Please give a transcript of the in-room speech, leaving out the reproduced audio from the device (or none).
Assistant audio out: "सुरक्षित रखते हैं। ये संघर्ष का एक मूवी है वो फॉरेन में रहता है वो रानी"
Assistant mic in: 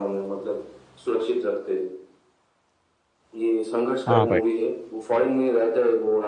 हाँ भाई